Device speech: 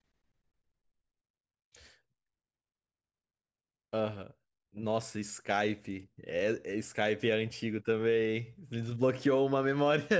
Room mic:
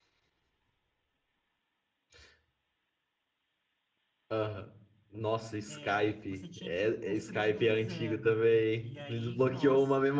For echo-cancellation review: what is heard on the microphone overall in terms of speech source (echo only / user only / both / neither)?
both